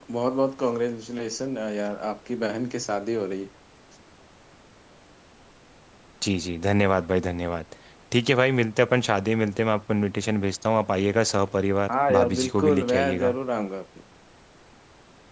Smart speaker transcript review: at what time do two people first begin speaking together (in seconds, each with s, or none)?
11.9 s